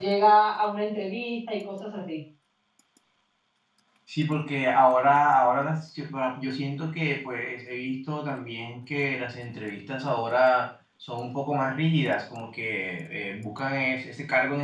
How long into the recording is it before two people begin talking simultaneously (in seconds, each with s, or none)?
none